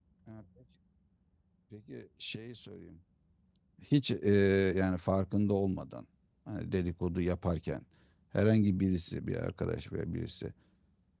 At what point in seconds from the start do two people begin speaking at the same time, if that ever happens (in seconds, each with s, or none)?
none